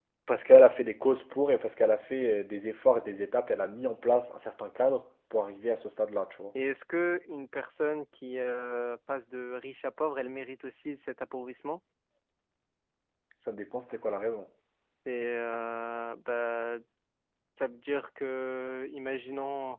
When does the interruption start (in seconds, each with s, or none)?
none